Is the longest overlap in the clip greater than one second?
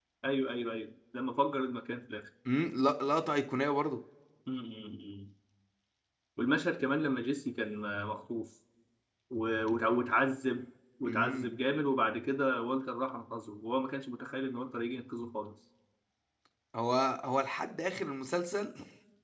No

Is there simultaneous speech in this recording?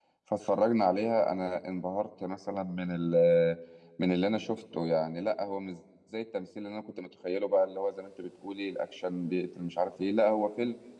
No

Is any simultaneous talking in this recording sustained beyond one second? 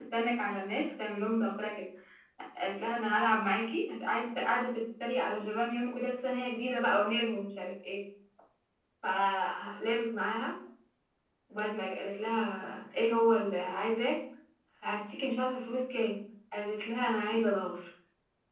No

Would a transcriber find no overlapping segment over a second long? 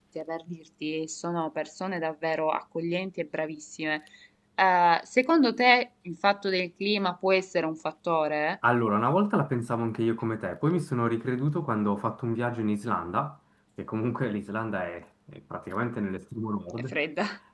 Yes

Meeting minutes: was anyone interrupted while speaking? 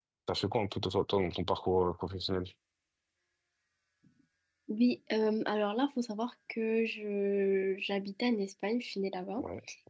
No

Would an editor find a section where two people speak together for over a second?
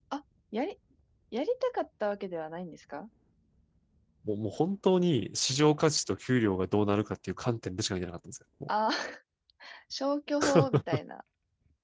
No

